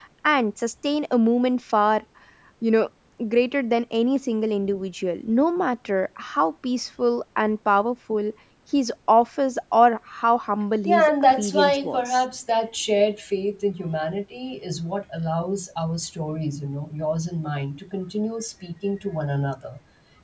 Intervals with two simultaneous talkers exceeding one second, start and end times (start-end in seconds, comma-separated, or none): 10.8-12.2